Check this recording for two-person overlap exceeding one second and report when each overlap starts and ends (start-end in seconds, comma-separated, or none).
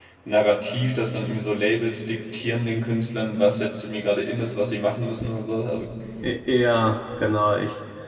none